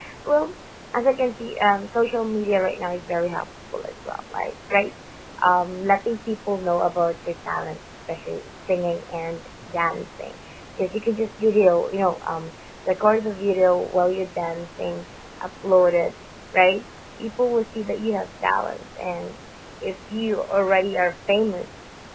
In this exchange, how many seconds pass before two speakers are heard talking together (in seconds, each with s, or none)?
none